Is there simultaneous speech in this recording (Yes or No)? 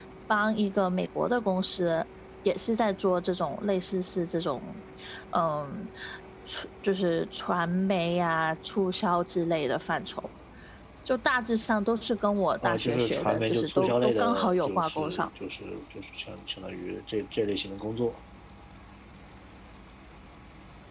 Yes